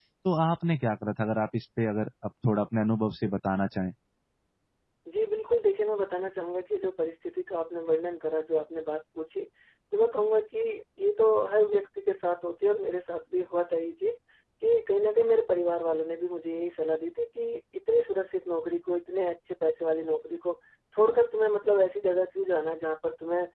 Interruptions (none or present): none